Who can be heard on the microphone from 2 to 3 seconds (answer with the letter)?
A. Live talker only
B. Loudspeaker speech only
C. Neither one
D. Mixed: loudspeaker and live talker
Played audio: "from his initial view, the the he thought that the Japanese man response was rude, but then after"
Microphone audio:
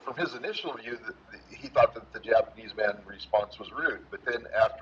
B